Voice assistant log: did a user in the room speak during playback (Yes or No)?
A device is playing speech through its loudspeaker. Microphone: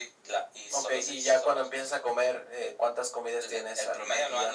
No